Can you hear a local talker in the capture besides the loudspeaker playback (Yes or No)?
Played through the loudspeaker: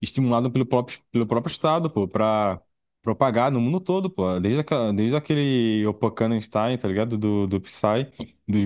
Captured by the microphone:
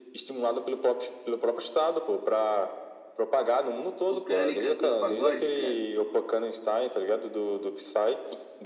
Yes